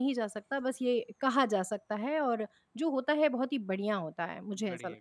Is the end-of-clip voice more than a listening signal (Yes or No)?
Yes